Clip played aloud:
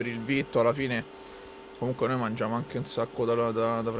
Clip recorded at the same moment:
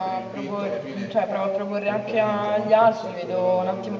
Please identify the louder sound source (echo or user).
user